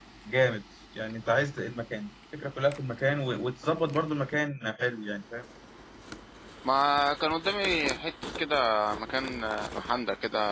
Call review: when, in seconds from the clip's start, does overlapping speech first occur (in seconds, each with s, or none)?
none